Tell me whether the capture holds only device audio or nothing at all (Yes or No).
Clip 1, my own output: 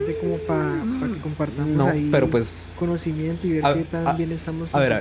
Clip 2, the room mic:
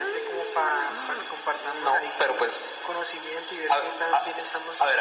Yes